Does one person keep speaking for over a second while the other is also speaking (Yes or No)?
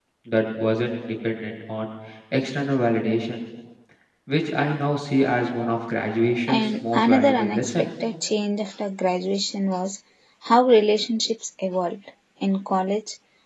Yes